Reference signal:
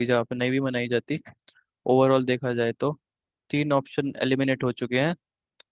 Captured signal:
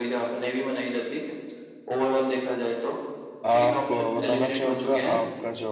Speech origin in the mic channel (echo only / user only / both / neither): both